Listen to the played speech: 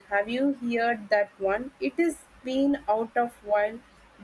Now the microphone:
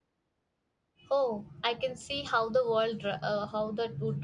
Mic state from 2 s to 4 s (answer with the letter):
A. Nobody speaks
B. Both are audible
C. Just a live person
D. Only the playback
C